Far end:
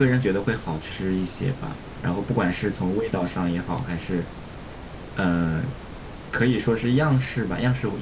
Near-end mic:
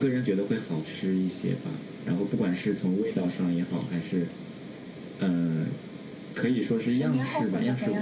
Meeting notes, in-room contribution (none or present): present